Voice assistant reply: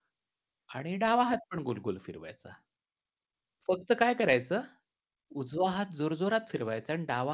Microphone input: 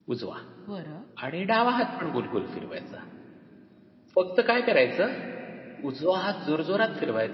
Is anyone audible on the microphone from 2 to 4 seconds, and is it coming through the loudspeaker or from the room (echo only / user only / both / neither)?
echo only